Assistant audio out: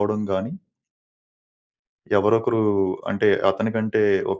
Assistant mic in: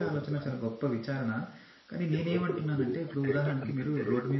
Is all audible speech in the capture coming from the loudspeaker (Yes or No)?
No